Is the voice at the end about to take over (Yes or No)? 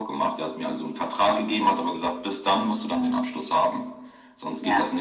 No